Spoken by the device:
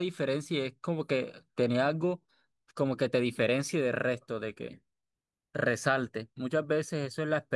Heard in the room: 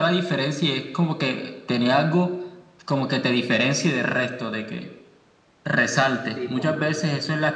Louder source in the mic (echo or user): echo